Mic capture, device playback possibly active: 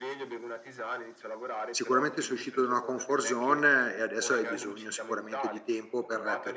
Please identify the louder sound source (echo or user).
user